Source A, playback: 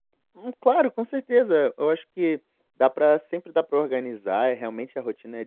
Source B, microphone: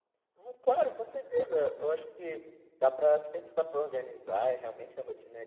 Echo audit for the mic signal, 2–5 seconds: echo only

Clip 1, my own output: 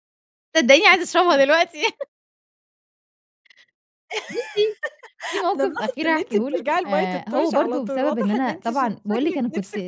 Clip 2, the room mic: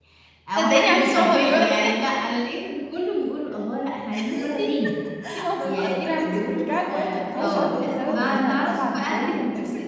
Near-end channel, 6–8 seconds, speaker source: both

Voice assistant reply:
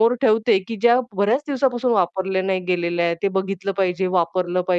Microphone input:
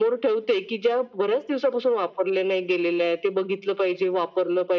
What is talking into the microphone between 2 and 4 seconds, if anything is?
echo only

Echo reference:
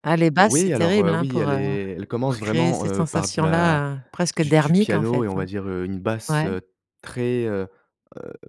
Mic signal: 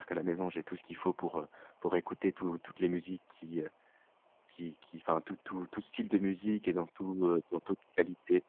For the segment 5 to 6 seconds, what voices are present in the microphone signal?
user only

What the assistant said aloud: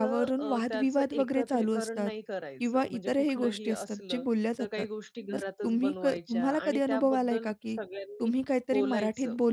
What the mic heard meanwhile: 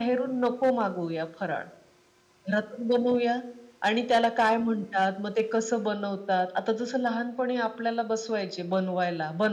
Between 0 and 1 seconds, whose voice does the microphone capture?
user only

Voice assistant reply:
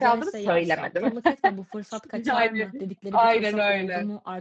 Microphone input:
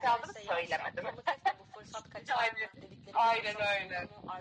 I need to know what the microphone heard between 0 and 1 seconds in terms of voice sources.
echo only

